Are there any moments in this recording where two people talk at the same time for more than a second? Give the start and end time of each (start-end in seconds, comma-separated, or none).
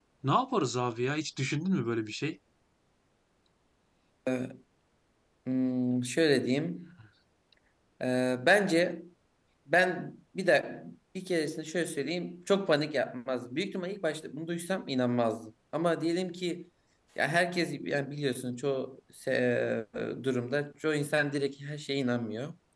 none